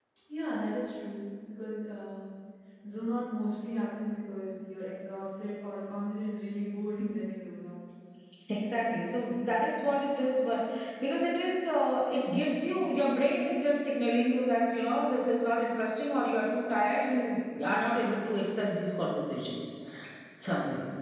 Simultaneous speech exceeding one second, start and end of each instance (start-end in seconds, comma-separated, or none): none